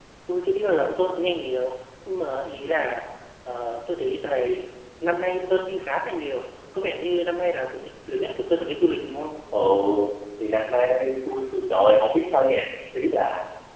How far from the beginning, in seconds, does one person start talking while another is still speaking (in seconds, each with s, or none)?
none